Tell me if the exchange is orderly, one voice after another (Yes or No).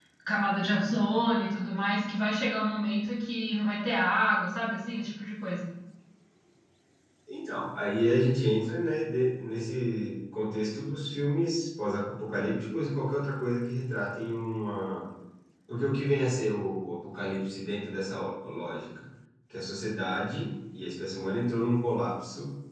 Yes